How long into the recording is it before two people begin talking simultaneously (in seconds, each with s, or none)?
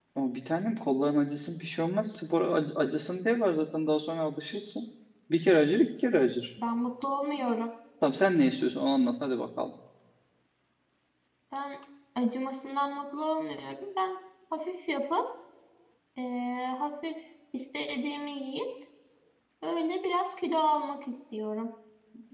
none